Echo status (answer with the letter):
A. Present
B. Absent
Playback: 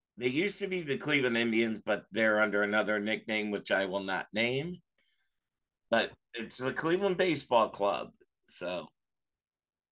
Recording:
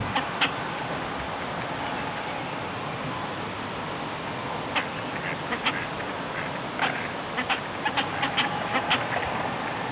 B